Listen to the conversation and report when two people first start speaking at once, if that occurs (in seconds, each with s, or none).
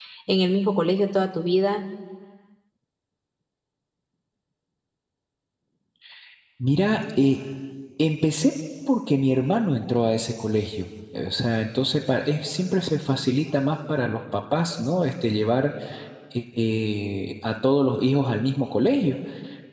none